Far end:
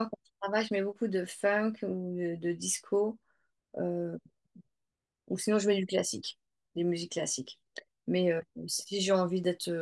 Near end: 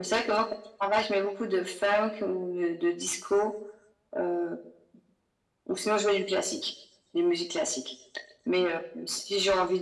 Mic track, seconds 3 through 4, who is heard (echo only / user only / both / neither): echo only